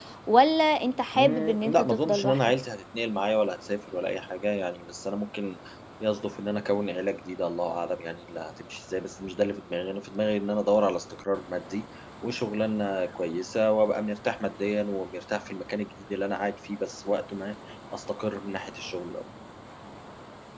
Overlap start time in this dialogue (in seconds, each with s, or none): 1.1 s